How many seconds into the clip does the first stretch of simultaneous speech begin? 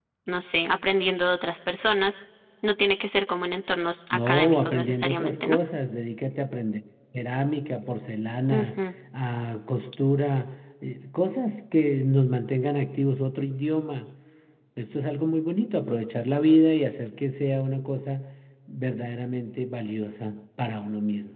4.1 s

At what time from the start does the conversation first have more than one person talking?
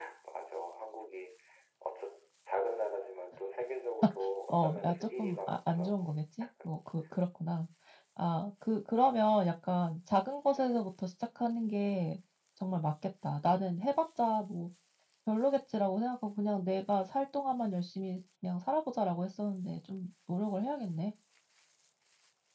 4.5 s

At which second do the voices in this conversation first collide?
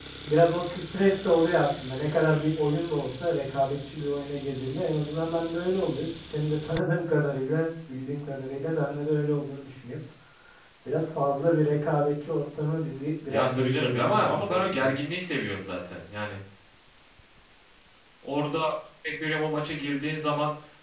13.3 s

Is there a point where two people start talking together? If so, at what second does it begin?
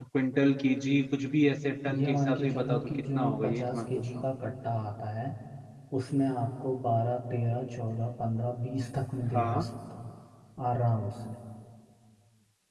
1.9 s

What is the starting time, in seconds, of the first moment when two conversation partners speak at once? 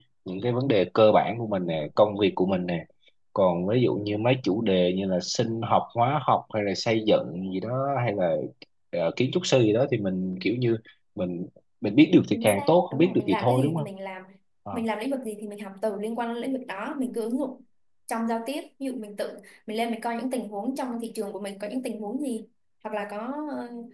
12.3 s

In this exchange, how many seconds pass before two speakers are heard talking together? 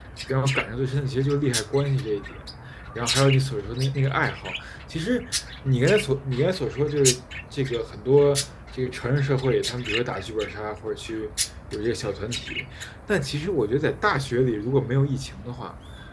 none

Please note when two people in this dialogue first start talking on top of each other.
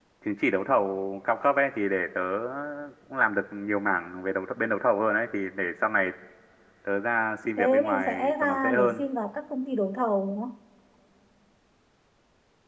7.6 s

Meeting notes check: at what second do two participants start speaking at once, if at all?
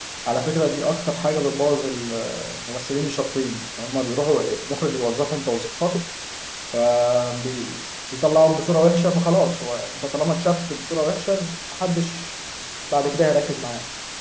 none

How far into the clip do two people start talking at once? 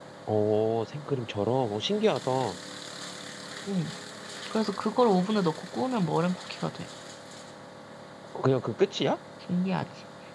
none

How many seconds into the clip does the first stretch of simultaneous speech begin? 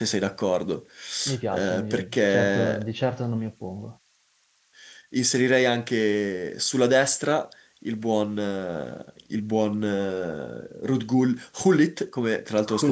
1.5 s

